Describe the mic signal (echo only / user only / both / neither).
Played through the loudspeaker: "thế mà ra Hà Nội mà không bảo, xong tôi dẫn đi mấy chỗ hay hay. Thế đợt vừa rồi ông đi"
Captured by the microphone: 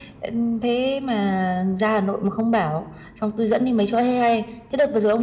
echo only